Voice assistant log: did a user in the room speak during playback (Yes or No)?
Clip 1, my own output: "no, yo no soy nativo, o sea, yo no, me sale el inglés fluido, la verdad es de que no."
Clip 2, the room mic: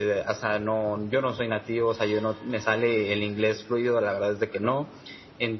No